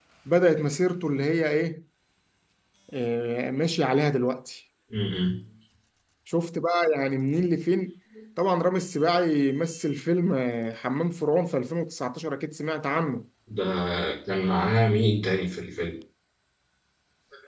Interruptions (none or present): none